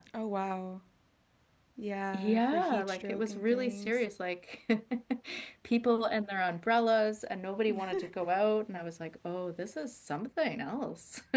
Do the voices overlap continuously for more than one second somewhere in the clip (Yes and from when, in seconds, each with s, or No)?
Yes, from 2.1 s